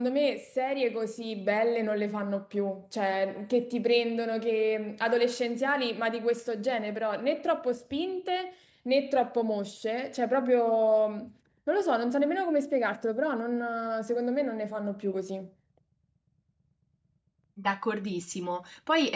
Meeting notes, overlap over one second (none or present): none